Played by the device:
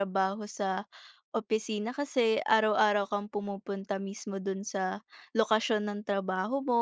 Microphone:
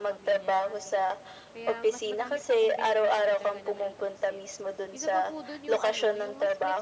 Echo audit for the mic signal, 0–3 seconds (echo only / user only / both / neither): both